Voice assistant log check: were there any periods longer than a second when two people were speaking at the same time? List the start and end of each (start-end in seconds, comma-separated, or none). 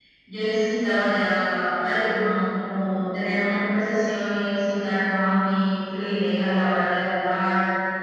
none